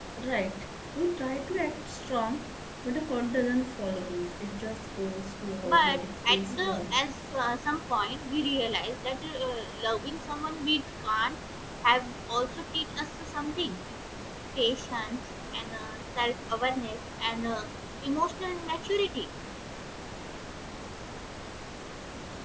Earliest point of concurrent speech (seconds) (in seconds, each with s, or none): 5.6 s